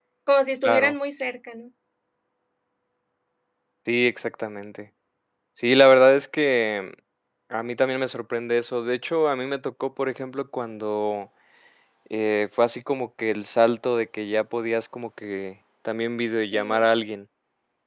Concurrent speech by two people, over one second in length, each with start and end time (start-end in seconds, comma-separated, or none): none